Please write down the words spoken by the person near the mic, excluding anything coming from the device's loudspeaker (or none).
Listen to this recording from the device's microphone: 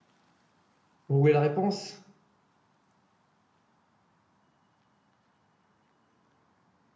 Vous voulez la réponse?